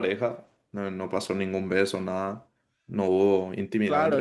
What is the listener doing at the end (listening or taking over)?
taking over